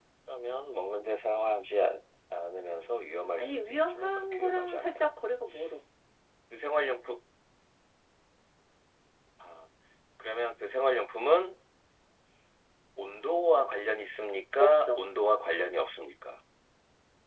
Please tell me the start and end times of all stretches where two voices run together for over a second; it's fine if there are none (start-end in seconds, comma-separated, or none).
3.4-5.1